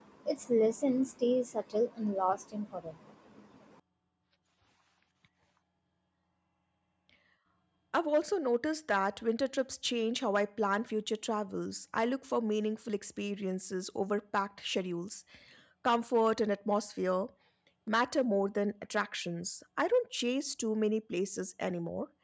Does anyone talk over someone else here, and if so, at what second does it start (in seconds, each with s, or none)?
none